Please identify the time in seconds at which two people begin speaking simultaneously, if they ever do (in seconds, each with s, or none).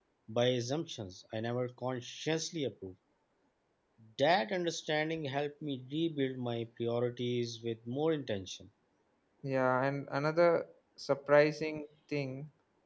none